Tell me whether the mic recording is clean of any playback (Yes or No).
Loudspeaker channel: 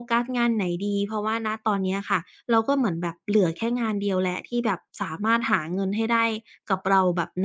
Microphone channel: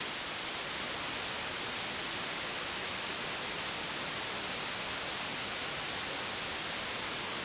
Yes